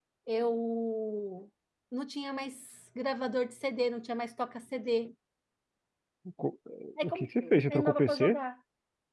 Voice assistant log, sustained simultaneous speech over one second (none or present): present